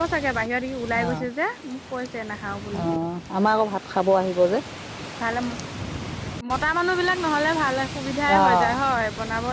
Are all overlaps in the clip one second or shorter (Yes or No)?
Yes